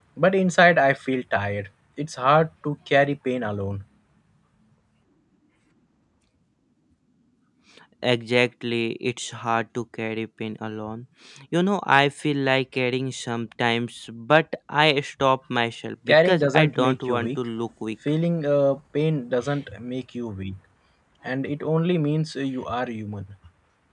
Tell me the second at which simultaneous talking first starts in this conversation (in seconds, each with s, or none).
16.1 s